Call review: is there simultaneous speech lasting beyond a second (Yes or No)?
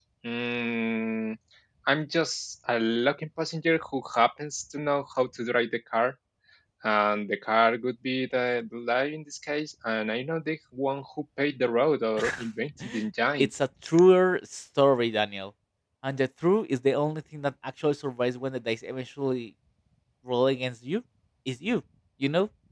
No